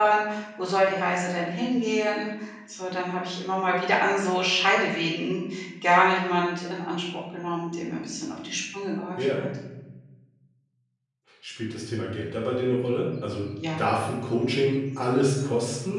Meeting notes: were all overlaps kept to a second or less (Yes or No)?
Yes